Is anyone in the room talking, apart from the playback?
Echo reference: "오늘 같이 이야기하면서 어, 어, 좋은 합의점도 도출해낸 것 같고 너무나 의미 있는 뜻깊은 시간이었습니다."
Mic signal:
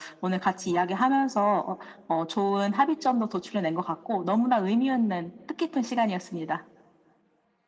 No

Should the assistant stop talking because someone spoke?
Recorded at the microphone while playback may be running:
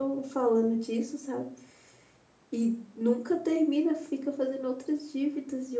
Yes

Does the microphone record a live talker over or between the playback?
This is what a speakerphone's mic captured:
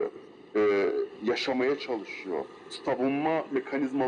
No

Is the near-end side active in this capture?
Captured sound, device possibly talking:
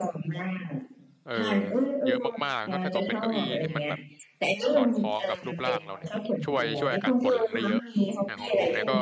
Yes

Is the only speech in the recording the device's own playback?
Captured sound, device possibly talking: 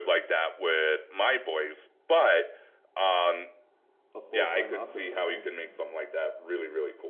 No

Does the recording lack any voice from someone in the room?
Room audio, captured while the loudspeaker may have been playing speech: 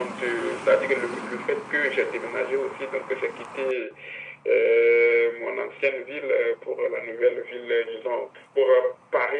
Yes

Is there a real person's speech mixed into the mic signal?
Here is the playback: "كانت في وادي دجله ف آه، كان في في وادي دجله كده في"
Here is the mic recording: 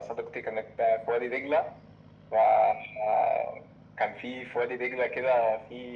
No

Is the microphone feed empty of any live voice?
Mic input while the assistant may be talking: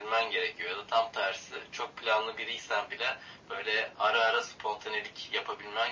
Yes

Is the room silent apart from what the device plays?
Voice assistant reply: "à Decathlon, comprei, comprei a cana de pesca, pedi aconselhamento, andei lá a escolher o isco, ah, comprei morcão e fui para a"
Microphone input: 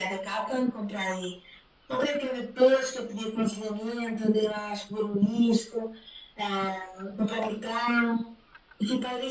Yes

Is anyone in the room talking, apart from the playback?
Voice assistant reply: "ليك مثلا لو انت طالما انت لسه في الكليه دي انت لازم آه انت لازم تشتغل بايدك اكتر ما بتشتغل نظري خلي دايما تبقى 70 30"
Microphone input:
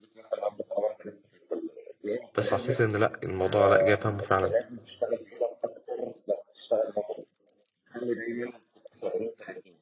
Yes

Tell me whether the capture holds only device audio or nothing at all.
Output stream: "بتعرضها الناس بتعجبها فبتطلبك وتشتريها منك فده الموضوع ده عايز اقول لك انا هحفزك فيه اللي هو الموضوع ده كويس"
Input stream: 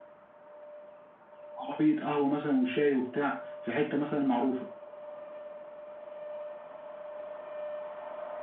No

